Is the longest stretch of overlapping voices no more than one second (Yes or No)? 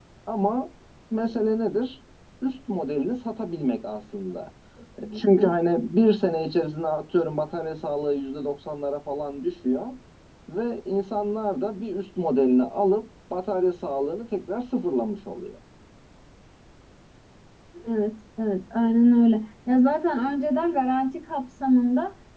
Yes